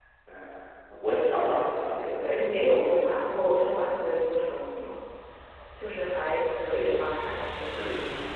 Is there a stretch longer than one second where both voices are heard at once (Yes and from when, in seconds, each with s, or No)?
Yes, from 1.4 s